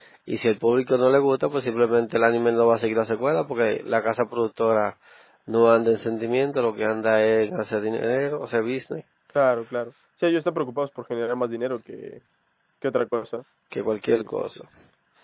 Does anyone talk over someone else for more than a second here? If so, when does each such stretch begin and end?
none

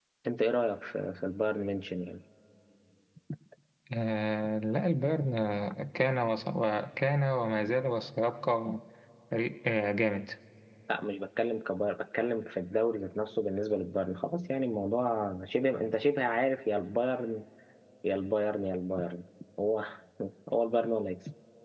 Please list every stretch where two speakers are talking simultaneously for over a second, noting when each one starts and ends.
none

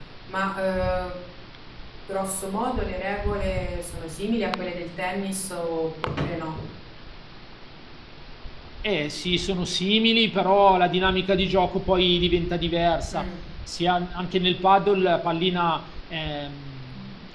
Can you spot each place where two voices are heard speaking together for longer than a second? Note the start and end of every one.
none

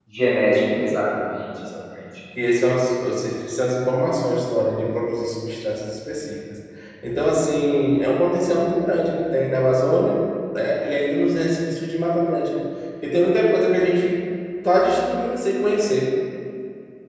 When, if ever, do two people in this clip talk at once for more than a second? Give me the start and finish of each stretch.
none

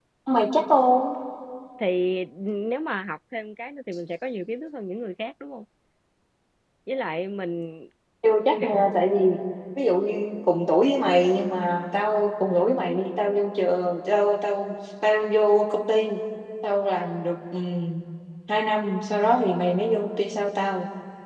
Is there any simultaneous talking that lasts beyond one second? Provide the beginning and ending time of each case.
none

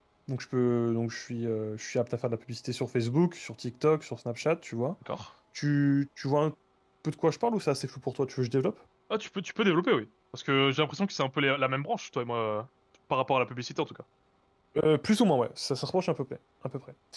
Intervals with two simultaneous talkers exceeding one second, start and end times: none

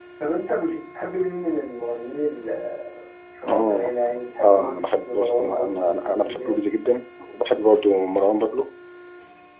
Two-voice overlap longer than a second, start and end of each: 4.4-6.5

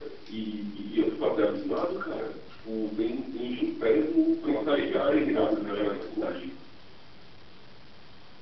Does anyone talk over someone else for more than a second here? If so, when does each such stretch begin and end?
4.5-6.3

